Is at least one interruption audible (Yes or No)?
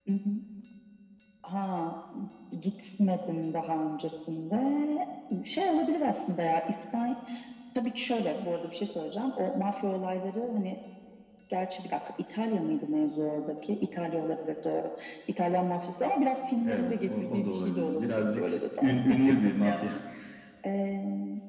Yes